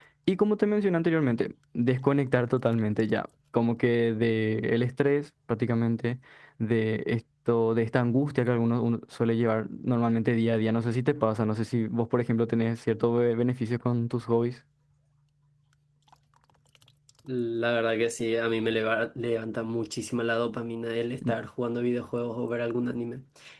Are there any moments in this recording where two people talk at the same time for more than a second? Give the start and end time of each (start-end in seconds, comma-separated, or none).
none